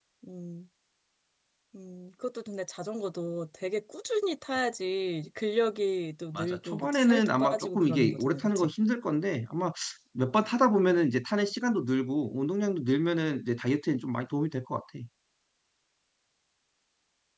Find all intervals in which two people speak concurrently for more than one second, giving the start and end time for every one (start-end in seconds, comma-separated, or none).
6.4-8.7